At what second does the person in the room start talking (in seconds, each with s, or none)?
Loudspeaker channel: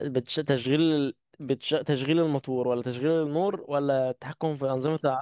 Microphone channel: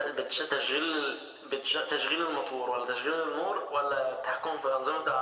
none